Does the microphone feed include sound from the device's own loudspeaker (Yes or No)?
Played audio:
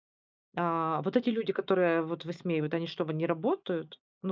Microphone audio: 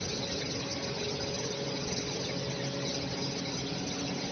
No